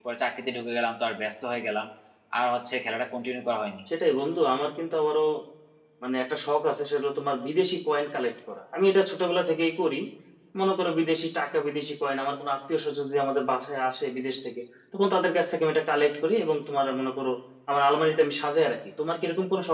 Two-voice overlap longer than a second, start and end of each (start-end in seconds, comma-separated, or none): none